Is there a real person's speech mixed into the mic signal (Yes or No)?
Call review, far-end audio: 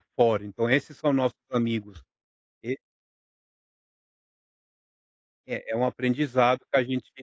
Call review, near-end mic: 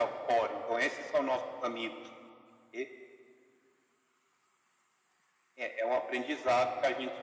No